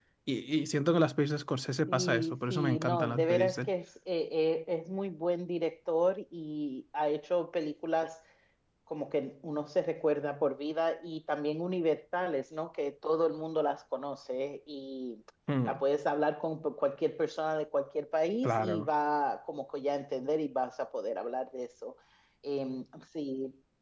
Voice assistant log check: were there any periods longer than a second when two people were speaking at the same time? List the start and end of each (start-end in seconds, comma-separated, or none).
1.9-3.7